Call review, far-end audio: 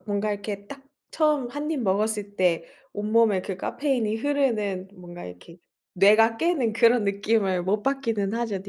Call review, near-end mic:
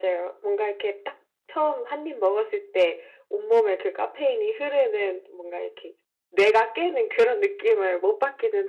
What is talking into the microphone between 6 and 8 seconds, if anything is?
echo only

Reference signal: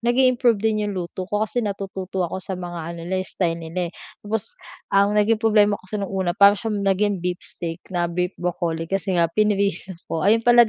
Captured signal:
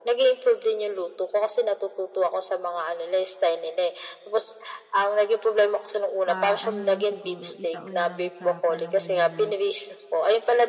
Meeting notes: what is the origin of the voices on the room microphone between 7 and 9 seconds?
both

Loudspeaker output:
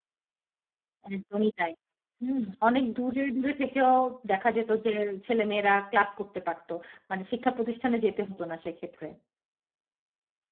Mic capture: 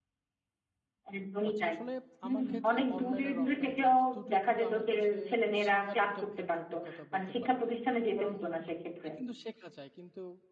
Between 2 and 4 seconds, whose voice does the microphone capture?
both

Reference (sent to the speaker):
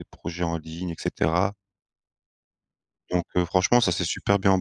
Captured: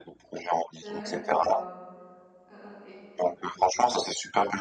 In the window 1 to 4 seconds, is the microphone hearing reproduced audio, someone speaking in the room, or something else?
both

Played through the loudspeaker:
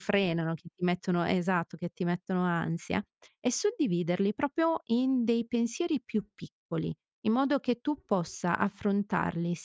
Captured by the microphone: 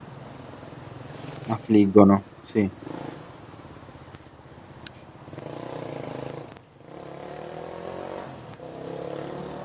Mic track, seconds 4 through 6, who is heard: neither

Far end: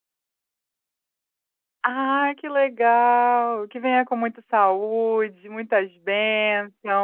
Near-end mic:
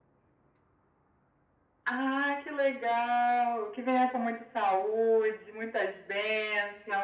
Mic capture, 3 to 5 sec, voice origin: echo only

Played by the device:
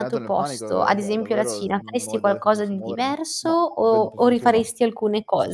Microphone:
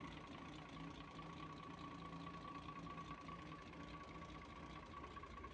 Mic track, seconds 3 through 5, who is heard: neither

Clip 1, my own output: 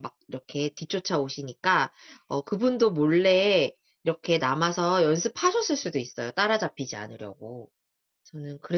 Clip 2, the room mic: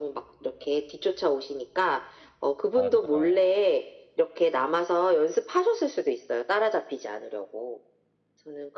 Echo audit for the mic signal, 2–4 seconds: both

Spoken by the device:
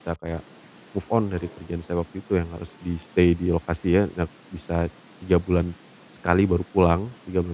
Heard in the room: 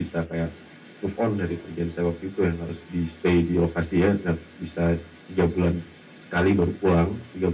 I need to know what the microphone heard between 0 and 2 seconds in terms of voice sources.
echo only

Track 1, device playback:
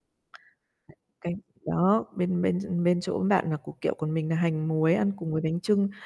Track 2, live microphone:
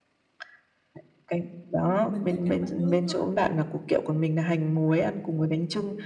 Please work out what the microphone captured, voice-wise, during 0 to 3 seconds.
both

